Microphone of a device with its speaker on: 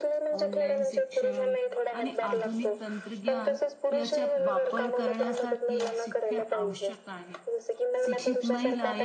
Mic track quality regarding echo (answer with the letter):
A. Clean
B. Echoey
B